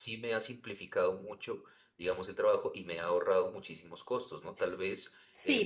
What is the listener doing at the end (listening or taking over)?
taking over